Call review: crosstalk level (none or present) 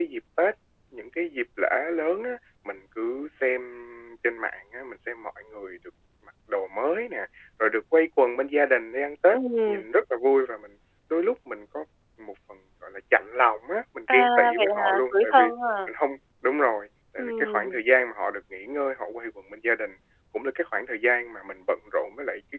present